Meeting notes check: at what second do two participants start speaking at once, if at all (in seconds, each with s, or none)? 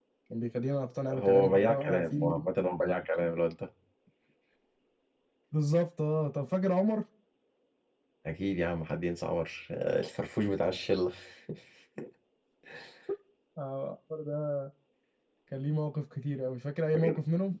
1.1 s